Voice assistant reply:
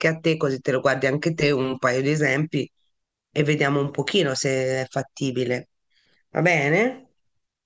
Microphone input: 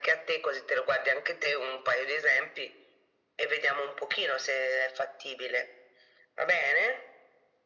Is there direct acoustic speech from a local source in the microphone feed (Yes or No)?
No